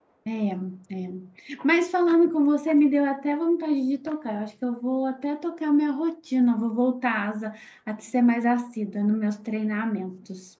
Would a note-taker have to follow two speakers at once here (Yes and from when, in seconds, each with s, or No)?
No